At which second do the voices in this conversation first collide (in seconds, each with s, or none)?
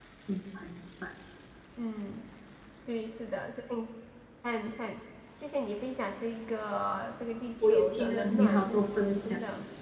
7.6 s